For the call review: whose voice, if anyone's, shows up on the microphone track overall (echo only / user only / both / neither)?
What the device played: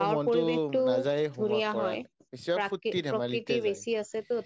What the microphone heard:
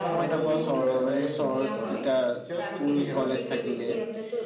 both